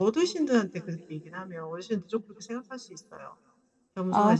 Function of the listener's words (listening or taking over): listening